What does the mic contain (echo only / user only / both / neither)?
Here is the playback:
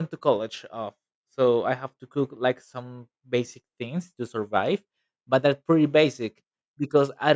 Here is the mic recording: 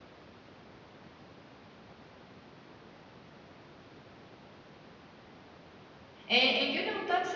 user only